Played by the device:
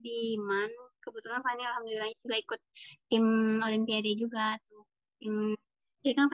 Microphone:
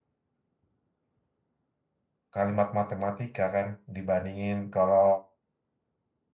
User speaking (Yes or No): Yes